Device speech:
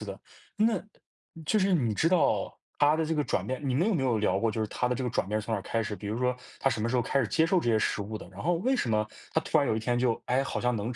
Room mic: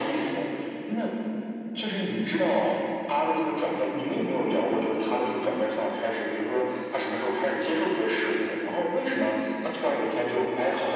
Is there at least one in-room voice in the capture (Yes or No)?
No